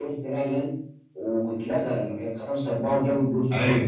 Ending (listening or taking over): taking over